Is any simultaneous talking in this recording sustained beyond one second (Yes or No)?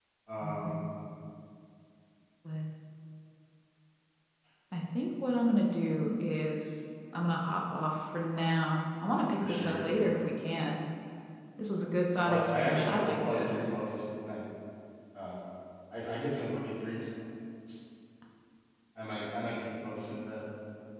Yes